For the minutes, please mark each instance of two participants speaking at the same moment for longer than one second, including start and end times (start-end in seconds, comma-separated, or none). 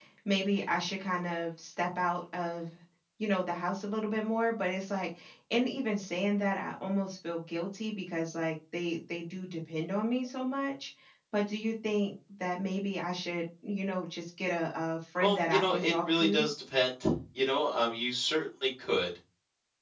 15.2-16.4